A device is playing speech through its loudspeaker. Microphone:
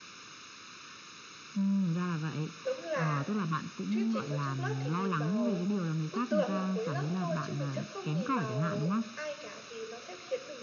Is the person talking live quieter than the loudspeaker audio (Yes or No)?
Yes